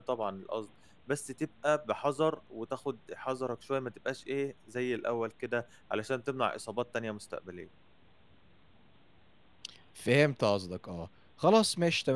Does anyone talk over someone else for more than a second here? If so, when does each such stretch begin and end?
none

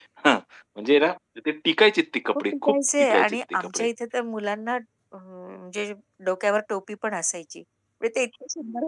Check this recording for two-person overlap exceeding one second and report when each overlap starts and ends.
2.5-3.9

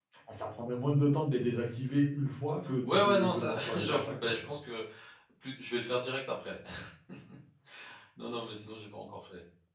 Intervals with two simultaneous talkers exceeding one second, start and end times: 2.9-4.5

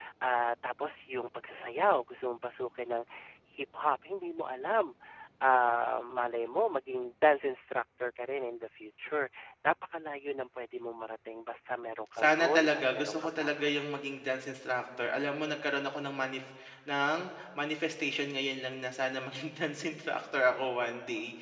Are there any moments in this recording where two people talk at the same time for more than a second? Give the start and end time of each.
12.2-13.7

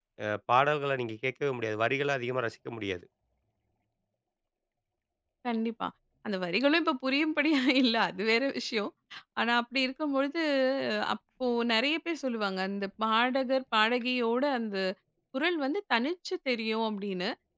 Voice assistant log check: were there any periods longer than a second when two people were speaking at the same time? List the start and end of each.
none

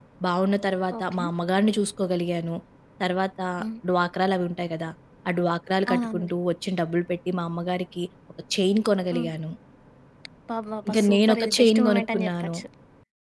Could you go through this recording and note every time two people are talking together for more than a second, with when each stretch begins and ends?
10.9-12.6

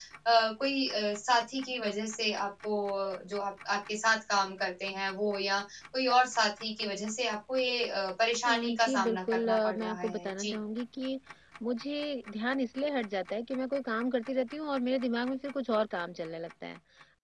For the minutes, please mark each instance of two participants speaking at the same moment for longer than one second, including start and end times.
8.5-10.6

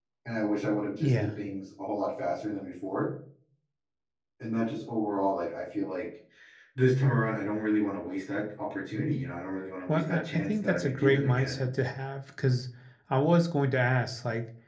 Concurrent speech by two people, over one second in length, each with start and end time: 9.9-11.6

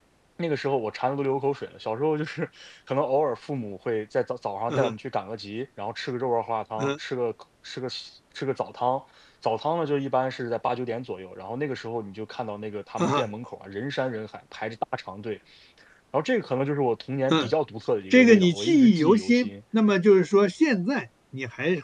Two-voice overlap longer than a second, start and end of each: 18.1-19.5

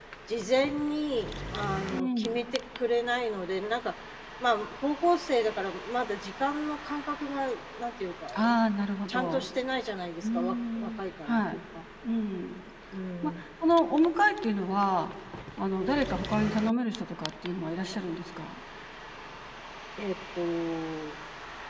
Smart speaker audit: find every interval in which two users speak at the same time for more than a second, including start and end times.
10.2-11.6

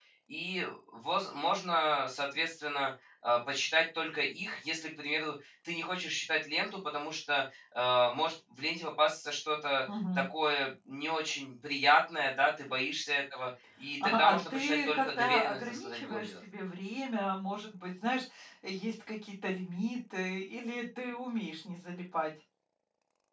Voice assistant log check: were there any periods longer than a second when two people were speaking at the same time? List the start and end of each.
14.0-16.3

